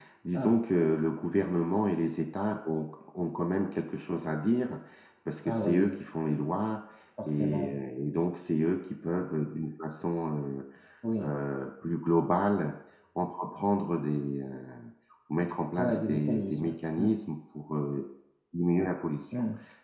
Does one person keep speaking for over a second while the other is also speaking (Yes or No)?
Yes